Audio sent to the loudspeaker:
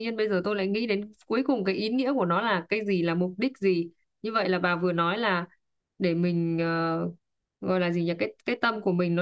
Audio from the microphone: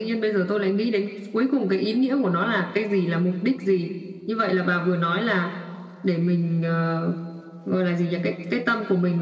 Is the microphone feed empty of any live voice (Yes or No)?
Yes